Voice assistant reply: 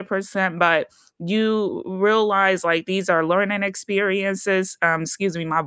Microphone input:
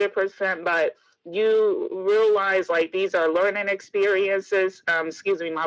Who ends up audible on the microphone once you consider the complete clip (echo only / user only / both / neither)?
echo only